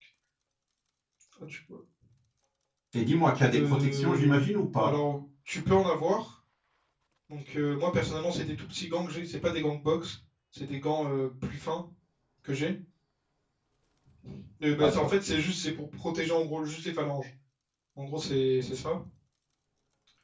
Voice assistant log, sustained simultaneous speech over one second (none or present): present